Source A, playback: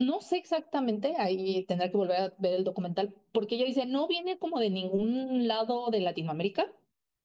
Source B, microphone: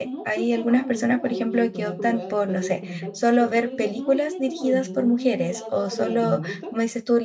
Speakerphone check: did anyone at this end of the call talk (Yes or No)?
Yes